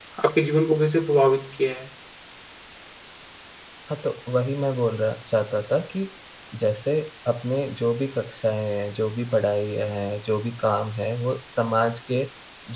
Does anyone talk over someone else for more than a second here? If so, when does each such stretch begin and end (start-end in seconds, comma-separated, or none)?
none